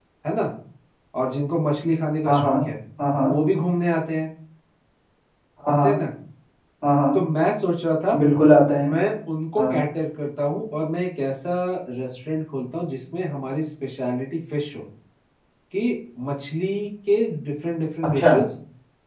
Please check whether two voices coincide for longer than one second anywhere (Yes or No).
No